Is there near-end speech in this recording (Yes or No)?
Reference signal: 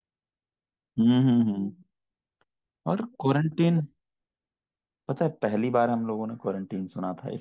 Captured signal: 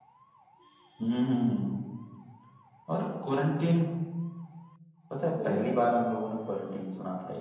Yes